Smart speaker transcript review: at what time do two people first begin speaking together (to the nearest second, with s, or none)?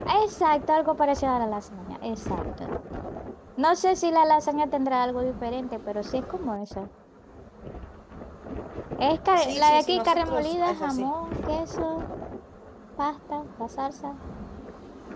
9 s